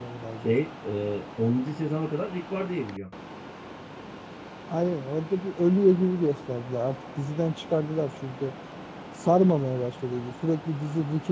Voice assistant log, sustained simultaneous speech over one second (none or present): none